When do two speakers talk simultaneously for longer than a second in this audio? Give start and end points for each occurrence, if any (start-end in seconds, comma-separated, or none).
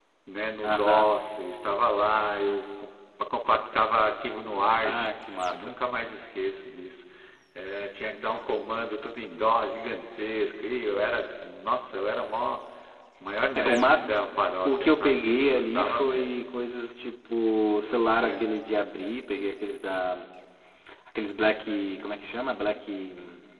14.7-16.4